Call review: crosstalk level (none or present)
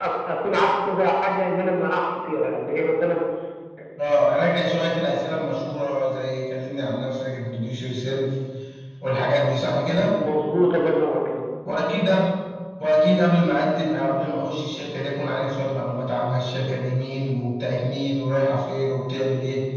none